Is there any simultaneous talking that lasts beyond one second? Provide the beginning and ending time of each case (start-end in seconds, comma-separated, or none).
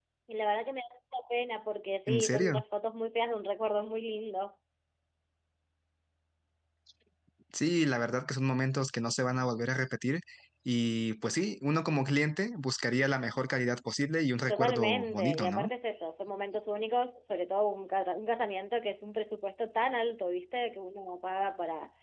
14.5-15.7